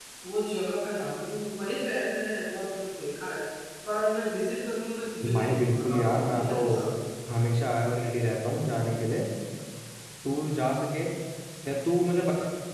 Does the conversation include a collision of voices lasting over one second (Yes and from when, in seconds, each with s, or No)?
Yes, from 5.2 s